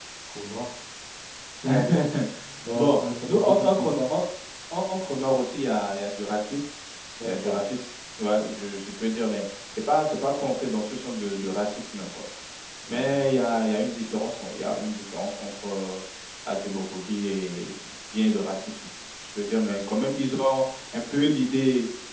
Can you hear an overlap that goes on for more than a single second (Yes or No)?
Yes